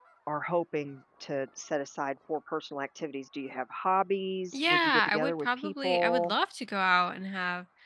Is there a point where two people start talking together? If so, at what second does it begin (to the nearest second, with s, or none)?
5 s